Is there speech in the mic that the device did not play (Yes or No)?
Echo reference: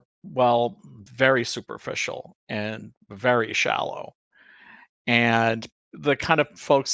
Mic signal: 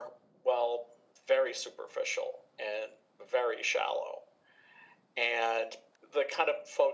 No